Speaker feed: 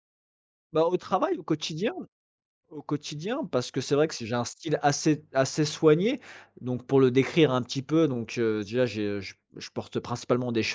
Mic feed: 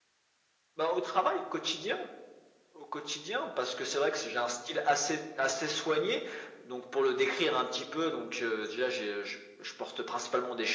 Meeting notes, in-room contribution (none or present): none